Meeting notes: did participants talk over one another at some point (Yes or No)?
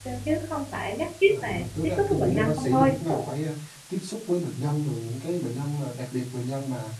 Yes